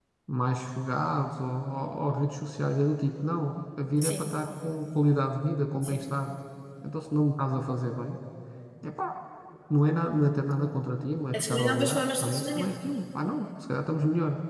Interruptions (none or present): present